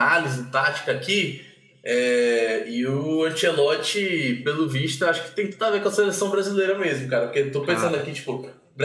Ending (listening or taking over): listening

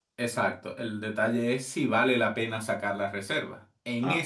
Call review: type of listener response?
listening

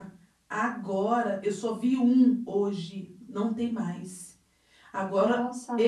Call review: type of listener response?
listening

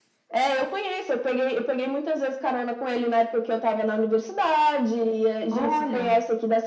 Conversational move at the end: listening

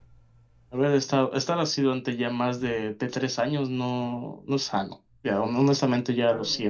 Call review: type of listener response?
taking over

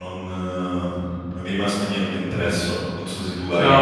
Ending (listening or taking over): taking over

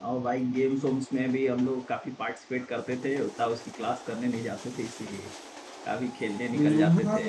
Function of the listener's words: taking over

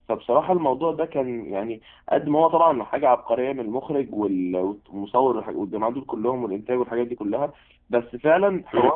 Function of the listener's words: listening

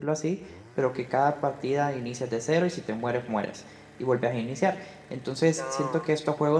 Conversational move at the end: listening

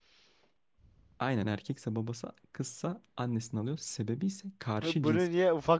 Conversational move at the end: taking over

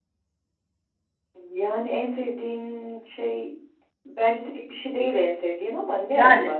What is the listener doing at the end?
taking over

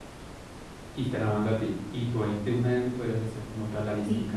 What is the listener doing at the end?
taking over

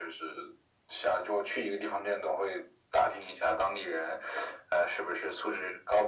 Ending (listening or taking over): listening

